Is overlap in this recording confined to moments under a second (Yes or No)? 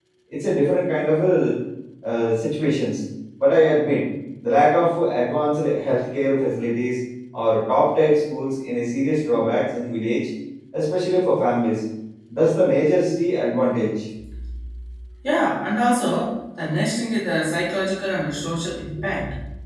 Yes